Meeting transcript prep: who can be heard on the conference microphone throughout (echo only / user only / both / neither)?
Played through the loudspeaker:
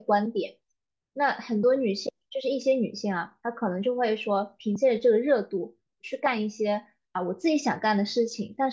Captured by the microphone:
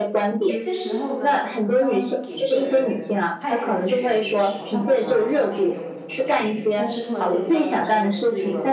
both